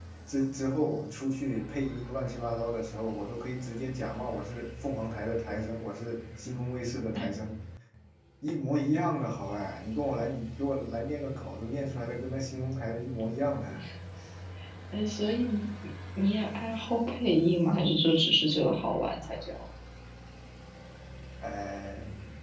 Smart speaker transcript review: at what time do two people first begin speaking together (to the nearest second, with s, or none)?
none